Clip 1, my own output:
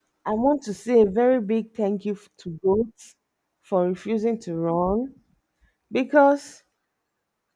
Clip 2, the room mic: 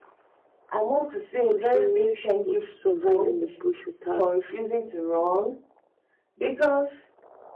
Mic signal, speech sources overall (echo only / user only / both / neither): both